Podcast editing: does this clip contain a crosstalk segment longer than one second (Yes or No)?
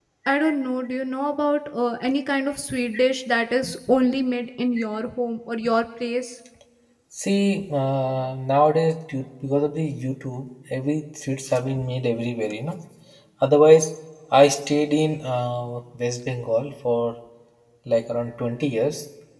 No